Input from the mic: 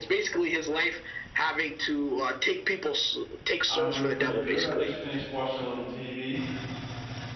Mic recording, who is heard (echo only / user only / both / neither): both